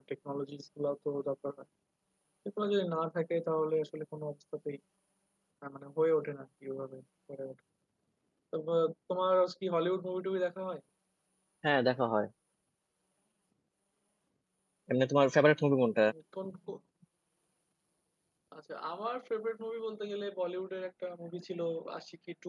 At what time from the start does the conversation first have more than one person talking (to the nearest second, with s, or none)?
none